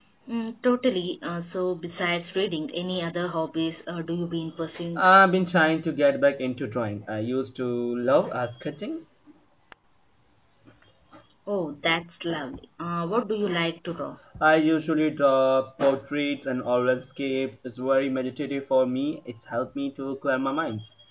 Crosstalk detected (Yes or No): No